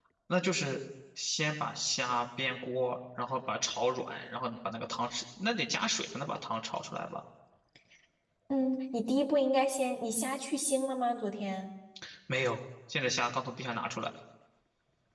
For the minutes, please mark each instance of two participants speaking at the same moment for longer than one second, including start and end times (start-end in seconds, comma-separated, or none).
none